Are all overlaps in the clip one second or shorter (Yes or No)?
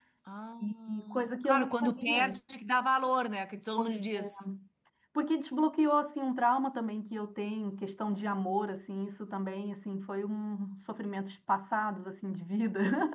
No